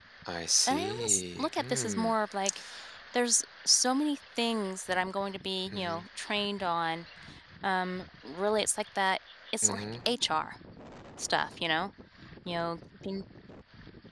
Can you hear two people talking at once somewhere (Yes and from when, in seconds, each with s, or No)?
Yes, from 0.7 s